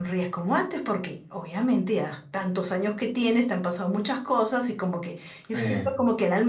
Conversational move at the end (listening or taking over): listening